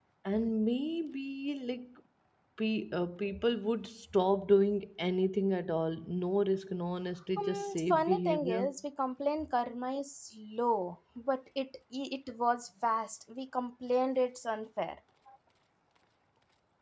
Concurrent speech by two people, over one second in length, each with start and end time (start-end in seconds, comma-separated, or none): 7.4-8.6